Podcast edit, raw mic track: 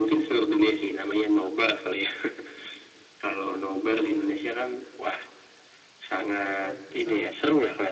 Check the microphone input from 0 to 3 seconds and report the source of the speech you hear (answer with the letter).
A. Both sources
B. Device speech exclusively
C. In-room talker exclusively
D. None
B